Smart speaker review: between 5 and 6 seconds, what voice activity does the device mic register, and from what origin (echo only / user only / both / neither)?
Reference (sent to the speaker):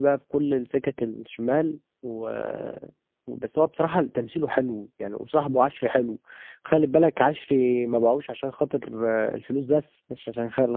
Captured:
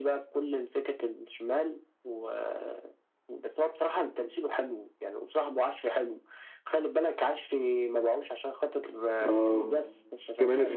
echo only